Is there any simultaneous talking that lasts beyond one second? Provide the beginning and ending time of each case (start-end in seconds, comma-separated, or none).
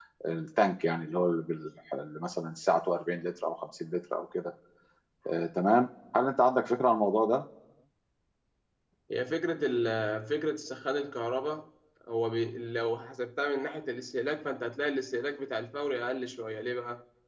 none